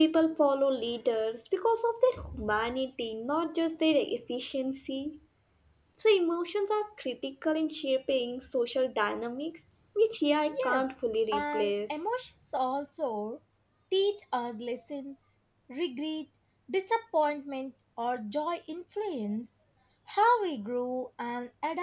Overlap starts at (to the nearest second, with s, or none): 10 s